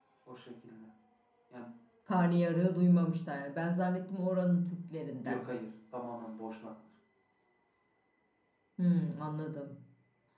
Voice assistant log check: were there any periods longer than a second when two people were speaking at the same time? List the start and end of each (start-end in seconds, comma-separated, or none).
none